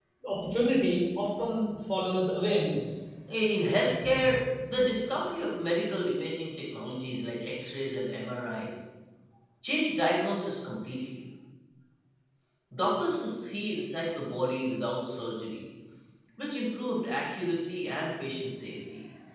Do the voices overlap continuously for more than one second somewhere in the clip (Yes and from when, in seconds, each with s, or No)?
No